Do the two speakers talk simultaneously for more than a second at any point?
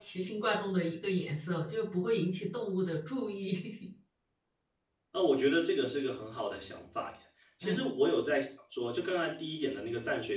No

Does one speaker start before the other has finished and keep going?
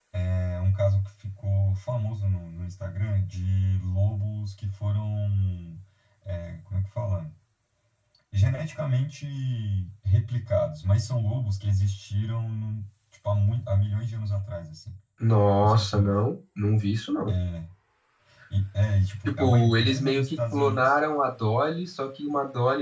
Yes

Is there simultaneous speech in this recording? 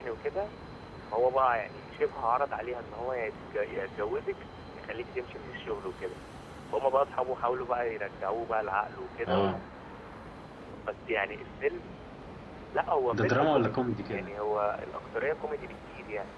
Yes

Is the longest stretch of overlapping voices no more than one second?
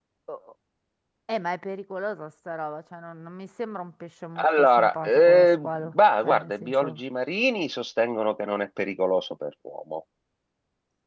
No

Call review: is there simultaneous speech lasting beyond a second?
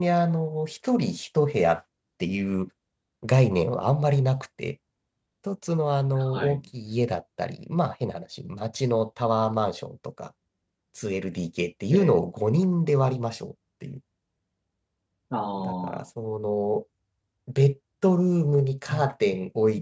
No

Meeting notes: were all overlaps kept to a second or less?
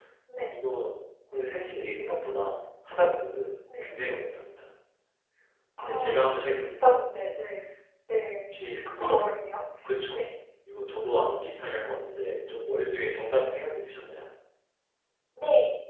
No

